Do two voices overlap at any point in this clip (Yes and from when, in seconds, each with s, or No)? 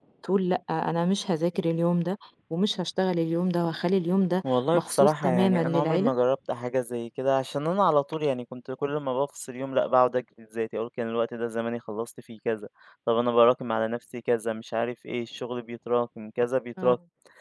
Yes, from 4.7 s